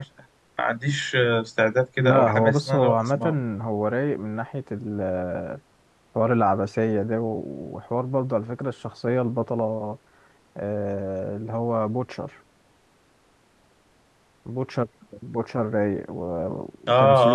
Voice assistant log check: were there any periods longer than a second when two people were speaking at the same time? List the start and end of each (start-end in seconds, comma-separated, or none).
2.0-3.2